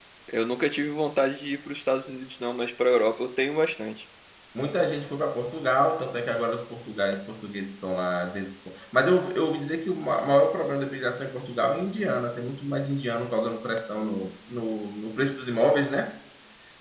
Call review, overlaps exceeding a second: none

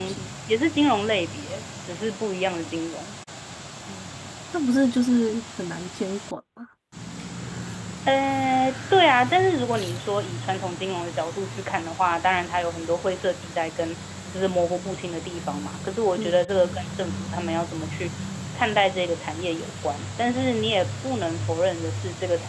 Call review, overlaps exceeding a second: none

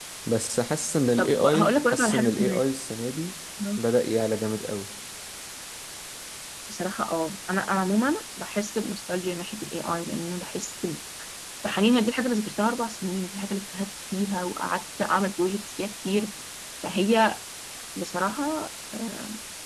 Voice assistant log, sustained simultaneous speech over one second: present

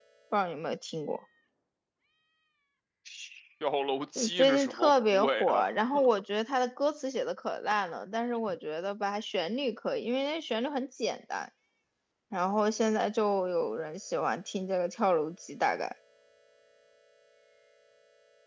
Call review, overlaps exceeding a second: present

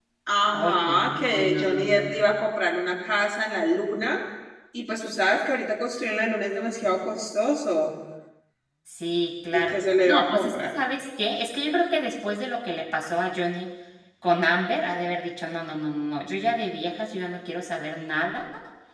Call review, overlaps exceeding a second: present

